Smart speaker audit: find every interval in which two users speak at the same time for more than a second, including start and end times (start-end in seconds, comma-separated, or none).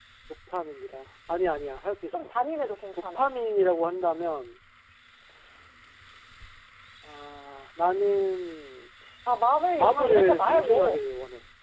9.8-11.0